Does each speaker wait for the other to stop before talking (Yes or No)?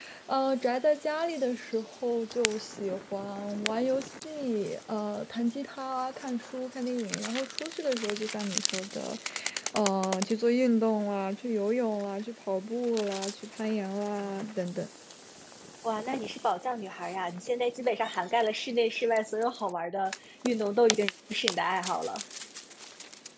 Yes